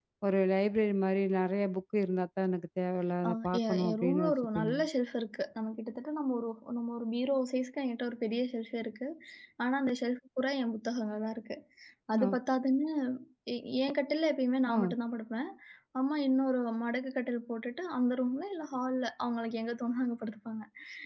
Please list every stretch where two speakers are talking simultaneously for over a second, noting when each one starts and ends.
3.3-4.8

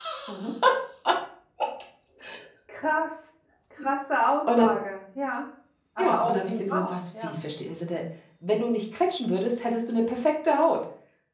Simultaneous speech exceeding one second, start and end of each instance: 6.0-7.4

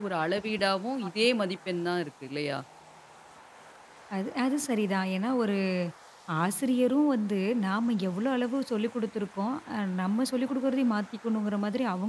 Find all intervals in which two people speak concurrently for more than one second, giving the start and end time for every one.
none

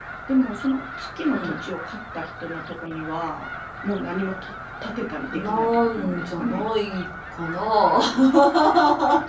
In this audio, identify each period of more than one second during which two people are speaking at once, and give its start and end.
5.3-6.6

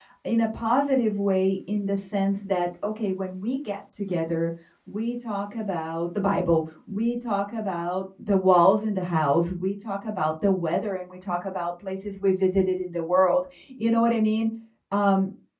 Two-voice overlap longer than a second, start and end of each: none

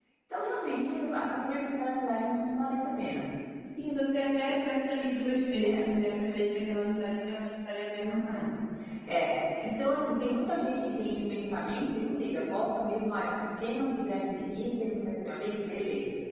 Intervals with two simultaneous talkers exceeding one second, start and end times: none

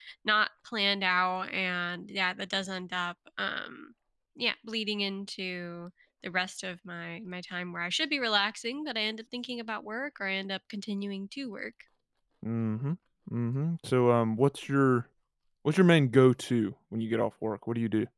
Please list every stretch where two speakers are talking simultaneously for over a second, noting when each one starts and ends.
none

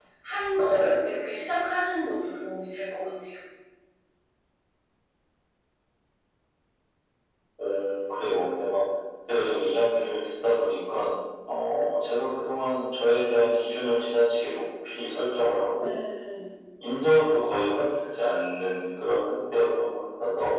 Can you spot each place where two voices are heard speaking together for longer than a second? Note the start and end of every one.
none

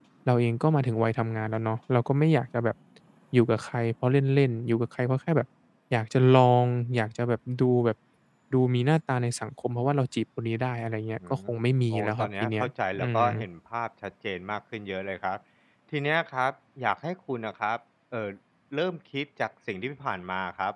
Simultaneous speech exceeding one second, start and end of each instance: 11.9-13.3

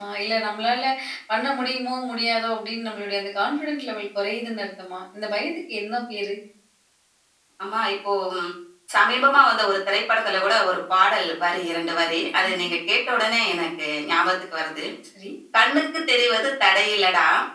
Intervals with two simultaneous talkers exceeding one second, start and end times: none

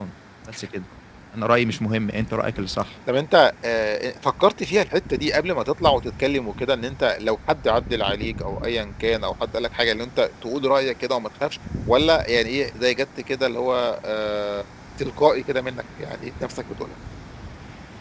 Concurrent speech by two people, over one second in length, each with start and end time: none

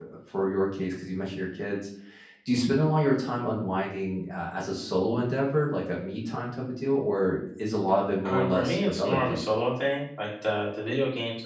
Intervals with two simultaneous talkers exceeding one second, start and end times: 8.2-9.7

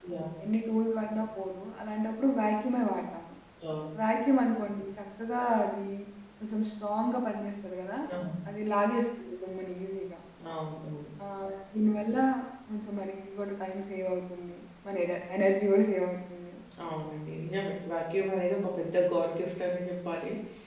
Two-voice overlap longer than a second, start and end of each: none

